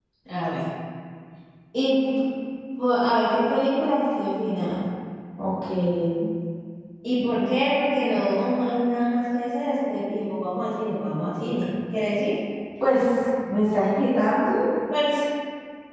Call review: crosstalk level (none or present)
none